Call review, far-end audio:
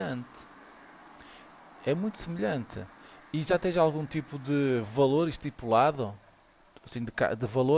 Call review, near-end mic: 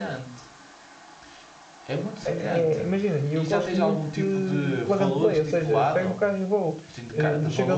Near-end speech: present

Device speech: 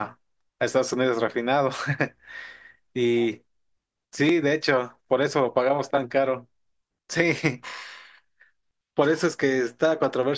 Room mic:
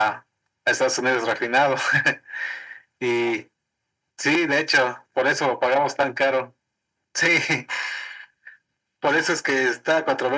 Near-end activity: none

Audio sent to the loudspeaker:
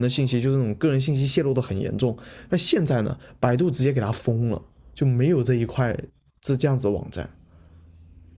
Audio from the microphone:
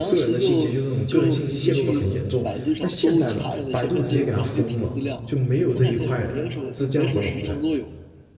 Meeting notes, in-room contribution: present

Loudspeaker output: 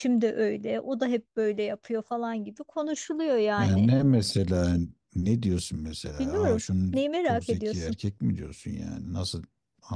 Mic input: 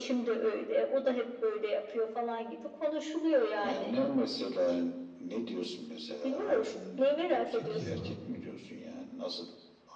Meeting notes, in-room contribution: present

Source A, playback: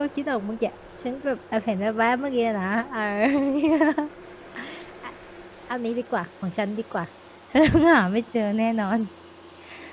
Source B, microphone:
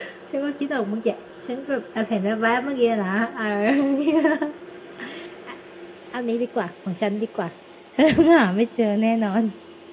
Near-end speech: none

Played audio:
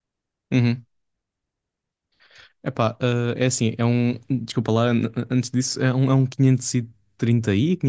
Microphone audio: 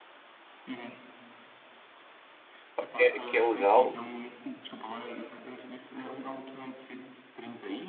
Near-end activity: present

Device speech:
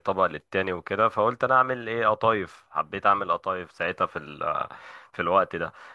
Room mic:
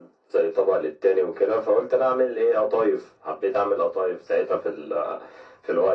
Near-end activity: none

